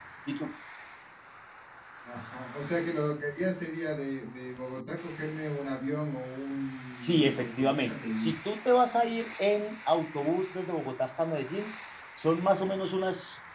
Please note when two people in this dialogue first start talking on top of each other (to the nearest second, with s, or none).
7 s